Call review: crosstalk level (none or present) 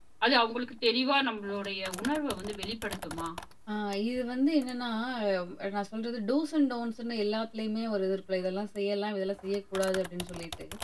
none